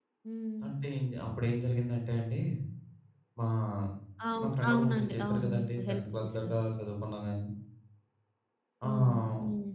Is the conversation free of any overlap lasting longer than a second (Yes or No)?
No